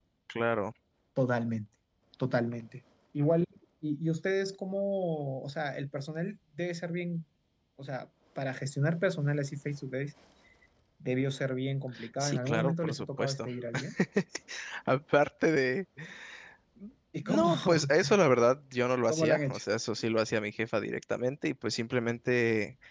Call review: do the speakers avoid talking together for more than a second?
No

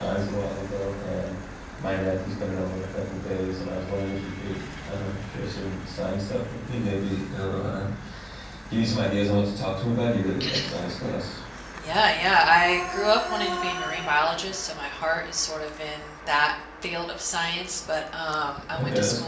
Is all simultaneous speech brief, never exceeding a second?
Yes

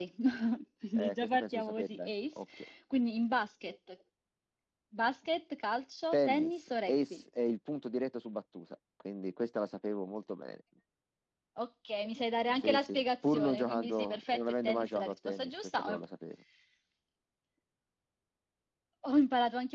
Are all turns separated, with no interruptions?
No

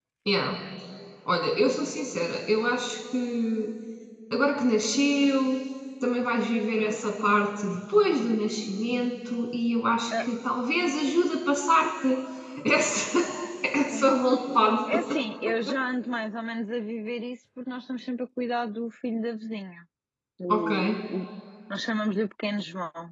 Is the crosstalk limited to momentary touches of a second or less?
Yes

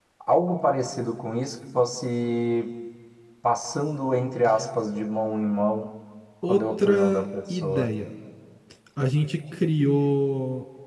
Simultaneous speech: Yes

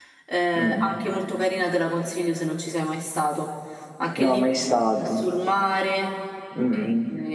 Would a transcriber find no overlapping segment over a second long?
Yes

